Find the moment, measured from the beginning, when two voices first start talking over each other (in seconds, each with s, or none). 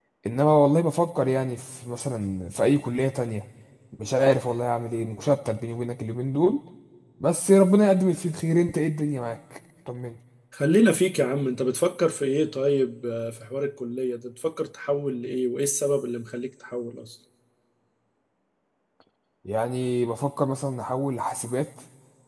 none